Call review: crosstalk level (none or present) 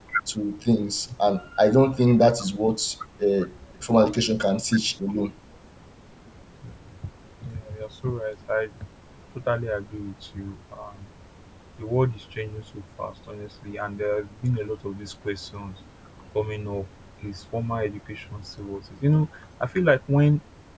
none